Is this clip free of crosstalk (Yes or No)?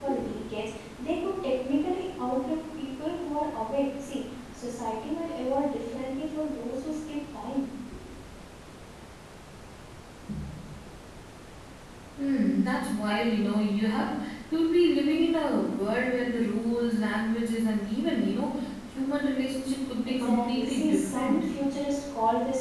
No